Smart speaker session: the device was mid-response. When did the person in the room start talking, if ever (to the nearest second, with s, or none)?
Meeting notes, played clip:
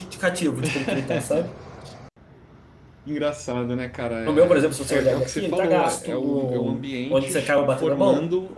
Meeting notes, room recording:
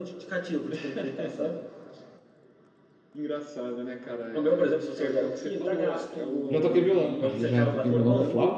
6 s